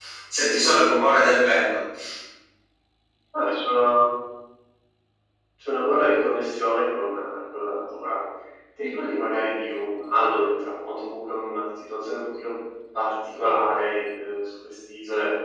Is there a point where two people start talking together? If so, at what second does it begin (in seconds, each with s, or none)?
none